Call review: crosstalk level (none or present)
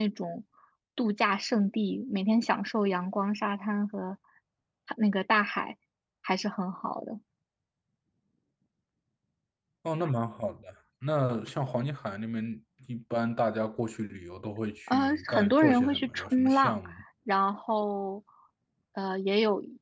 present